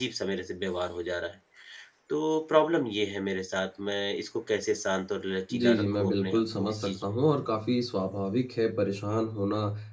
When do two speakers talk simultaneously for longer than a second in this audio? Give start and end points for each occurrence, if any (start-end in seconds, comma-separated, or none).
5.5-7.1